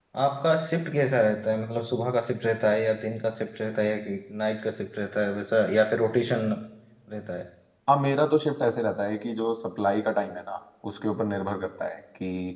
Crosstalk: none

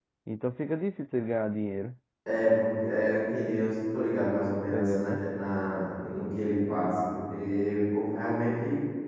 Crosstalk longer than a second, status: none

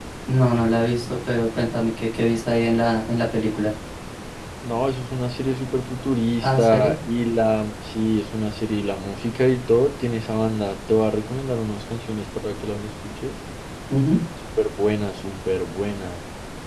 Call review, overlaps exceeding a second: none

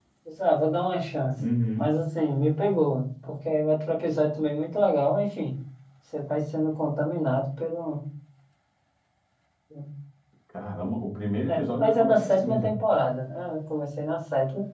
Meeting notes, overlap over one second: present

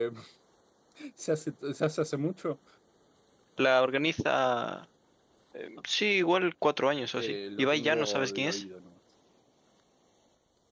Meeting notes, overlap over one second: present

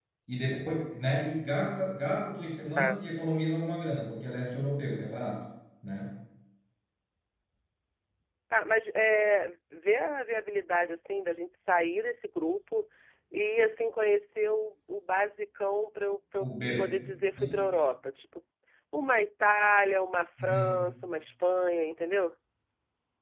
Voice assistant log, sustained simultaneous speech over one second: none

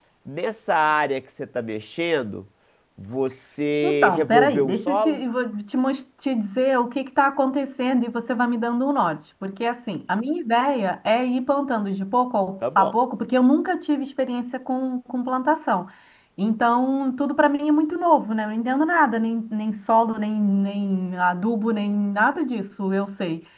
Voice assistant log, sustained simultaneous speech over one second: present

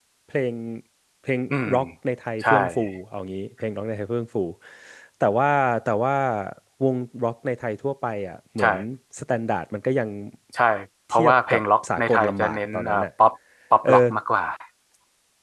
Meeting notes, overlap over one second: present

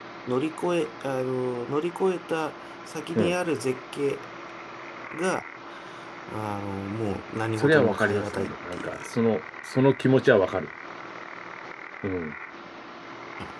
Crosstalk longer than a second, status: present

